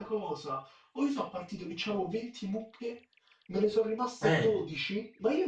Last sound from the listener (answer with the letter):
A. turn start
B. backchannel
B